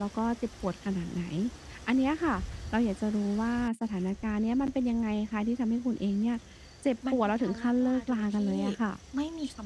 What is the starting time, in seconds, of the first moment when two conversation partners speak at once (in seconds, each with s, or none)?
7.1 s